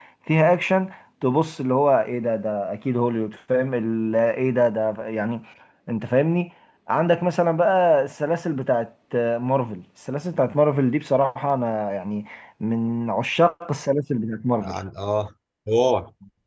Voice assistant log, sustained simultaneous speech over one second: none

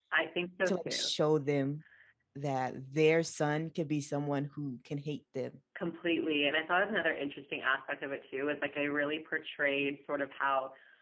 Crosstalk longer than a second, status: none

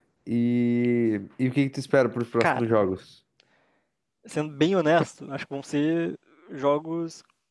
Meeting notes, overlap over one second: none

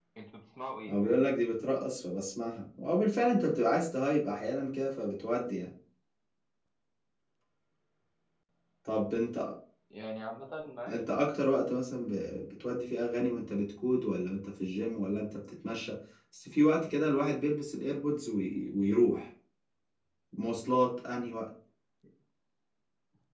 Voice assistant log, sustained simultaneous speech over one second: none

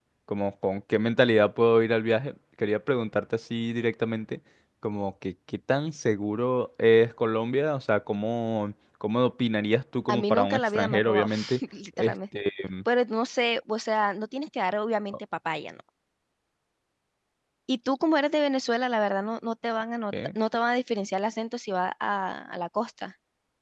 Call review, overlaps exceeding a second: present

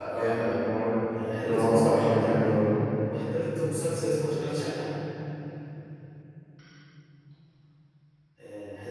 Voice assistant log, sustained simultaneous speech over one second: present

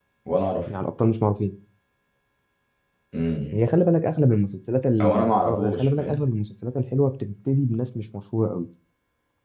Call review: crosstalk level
present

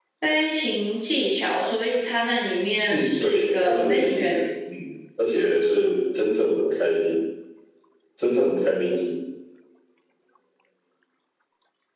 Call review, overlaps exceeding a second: present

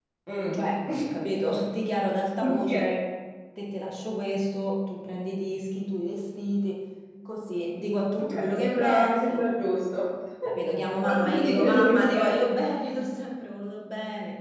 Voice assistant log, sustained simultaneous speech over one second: present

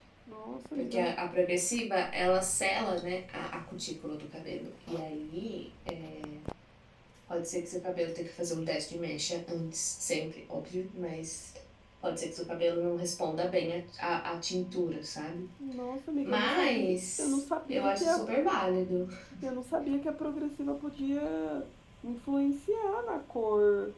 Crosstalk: present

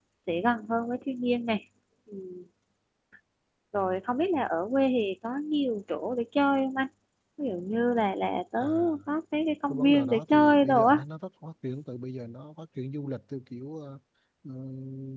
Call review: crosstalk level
present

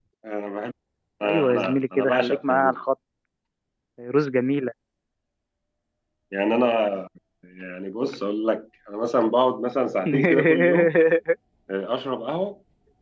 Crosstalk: present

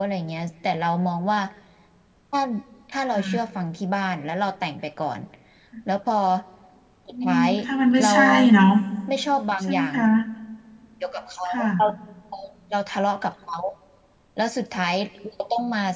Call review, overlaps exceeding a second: none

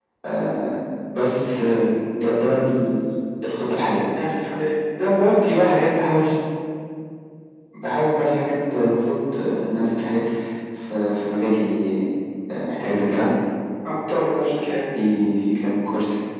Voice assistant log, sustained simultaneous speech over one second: none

